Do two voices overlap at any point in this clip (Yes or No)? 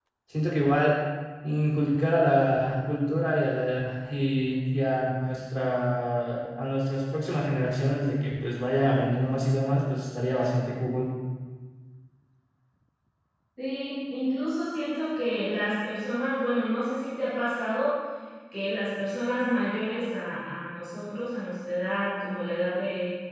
No